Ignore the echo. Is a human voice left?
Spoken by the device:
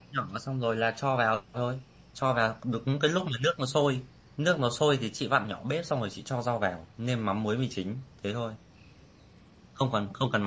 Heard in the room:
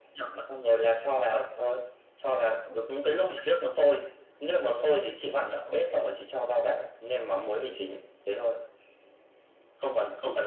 No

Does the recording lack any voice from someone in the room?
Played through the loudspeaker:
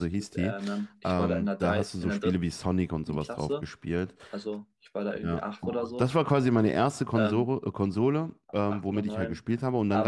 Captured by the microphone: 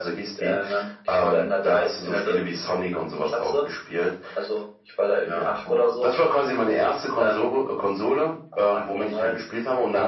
Yes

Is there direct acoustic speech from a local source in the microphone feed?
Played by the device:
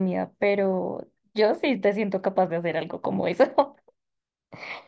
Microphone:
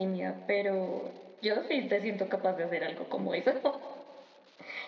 No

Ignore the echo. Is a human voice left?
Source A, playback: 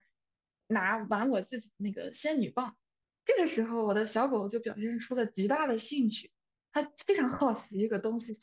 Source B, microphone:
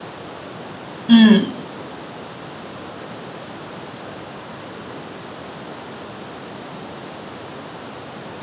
Yes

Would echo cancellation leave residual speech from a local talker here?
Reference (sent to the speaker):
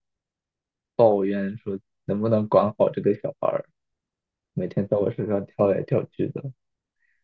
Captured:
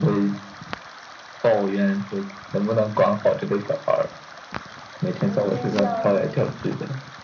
Yes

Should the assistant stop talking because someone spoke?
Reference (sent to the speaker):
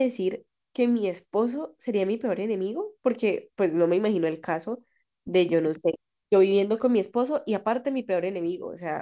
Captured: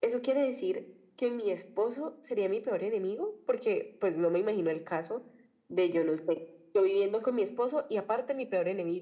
No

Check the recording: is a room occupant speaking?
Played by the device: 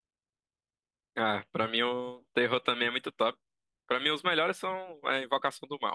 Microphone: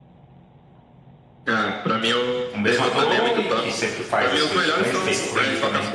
Yes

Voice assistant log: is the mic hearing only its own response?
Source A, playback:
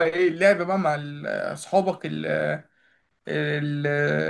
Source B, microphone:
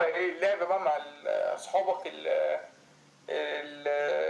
Yes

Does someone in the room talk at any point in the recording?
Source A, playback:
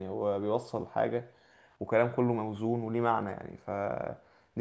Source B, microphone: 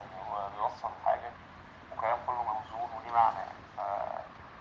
No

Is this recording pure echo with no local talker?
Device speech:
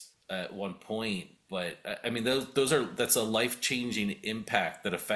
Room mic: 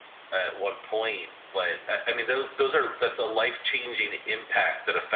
Yes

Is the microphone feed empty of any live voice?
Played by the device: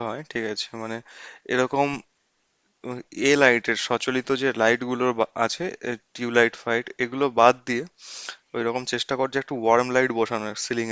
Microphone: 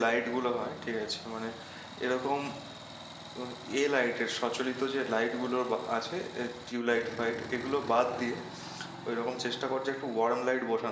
Yes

